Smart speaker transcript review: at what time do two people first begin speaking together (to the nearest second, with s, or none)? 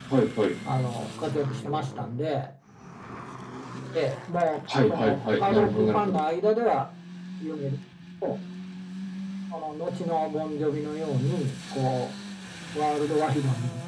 5 s